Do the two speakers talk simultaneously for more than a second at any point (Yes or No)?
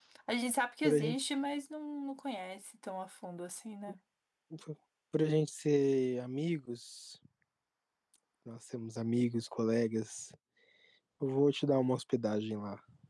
No